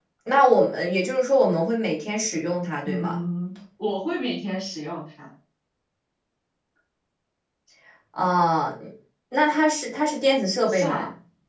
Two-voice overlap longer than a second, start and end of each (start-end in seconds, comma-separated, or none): none